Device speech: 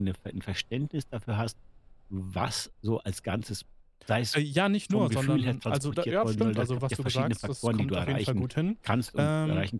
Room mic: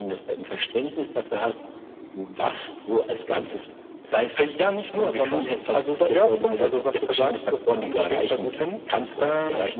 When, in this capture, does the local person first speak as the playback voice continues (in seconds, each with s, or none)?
none